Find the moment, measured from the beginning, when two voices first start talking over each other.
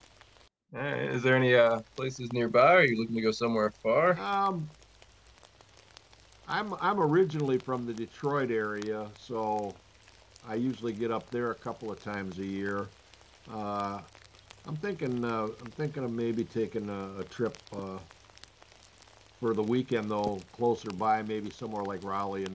none

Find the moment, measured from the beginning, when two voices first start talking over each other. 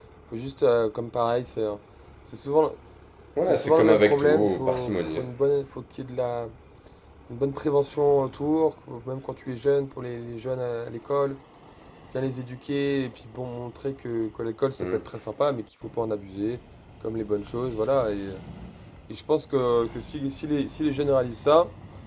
3 s

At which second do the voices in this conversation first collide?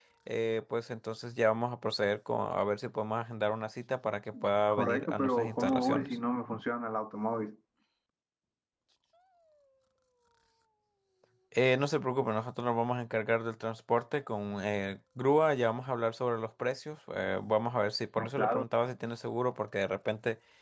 5 s

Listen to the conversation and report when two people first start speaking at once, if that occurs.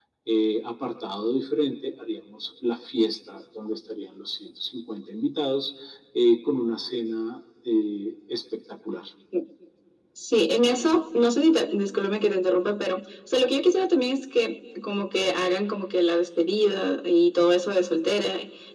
none

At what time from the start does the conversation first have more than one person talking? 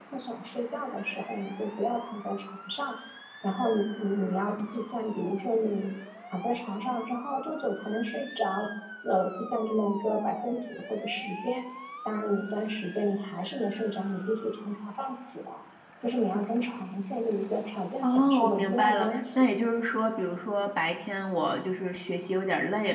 18 s

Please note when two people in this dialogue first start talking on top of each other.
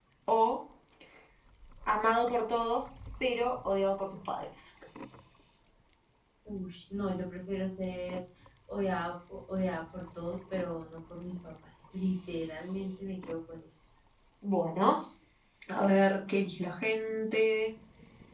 none

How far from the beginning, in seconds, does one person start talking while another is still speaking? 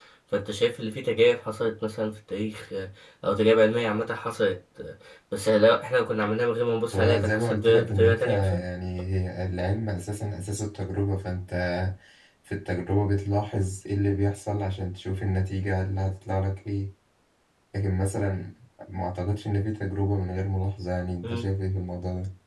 7 s

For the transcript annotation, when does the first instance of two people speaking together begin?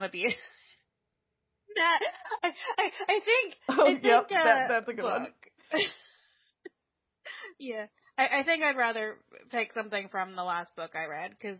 4 s

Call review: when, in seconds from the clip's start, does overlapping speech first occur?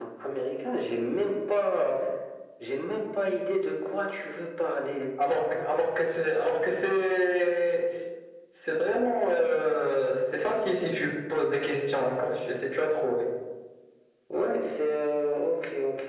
none

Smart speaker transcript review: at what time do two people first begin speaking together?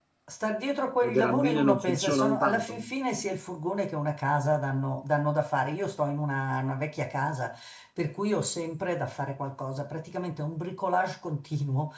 1 s

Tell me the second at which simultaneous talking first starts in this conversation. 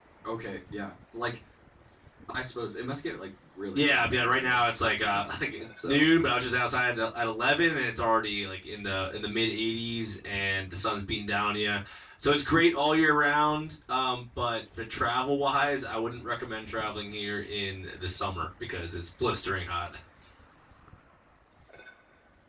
4 s

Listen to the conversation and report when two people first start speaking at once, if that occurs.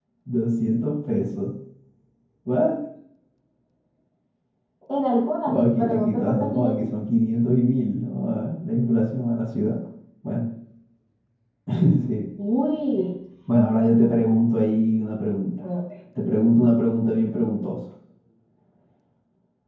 5 s

